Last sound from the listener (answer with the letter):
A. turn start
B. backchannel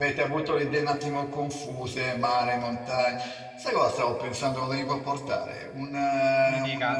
B